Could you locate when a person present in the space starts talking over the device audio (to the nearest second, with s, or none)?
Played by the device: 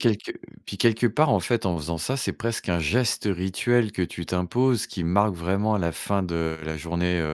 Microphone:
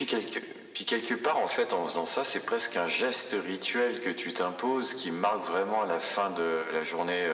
none